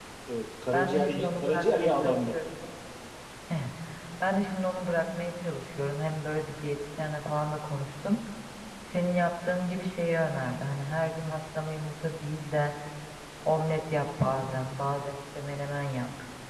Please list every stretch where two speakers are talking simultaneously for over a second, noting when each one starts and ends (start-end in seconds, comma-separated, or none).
0.7-2.4